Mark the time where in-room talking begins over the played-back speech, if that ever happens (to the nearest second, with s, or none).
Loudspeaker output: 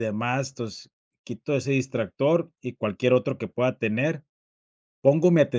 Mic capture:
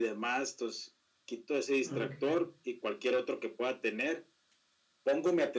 2 s